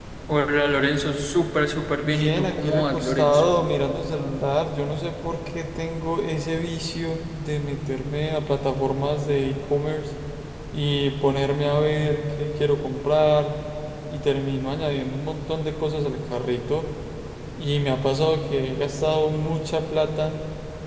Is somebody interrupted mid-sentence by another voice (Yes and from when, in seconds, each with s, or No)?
Yes, from 2.0 s